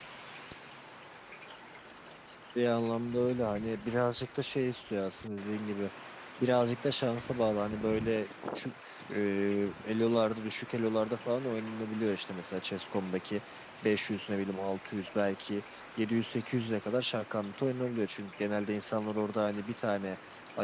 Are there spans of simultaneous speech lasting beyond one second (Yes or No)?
No